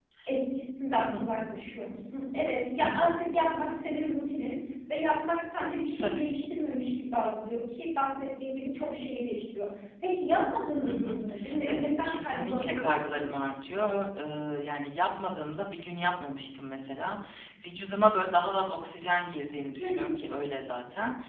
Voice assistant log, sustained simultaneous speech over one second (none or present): present